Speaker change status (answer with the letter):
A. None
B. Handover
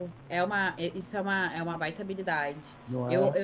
A